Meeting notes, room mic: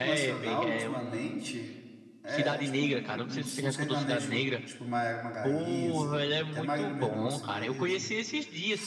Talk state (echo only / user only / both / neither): both